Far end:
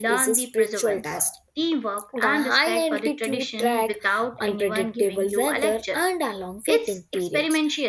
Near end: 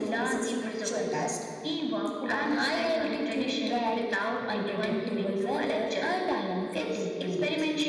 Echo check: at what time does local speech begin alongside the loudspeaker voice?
none

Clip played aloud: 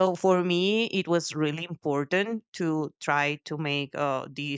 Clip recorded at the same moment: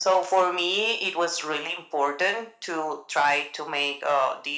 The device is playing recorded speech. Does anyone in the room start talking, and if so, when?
none

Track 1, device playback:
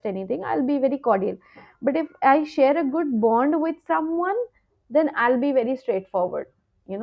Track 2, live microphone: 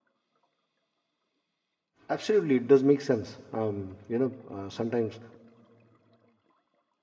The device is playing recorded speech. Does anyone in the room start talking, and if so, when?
2 s

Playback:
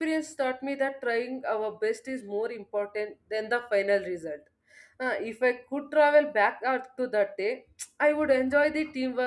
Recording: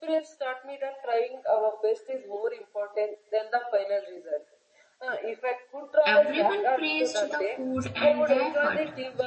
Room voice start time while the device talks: 6 s

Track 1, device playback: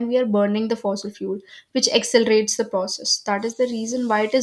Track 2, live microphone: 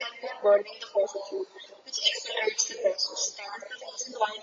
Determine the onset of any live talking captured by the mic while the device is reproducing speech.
none

